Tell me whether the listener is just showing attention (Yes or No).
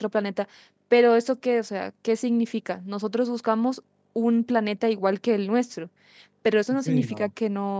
Yes